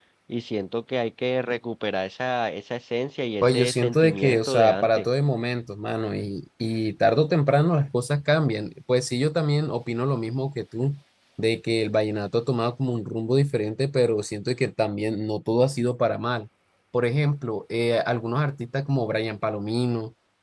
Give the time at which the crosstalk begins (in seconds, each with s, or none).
3.4 s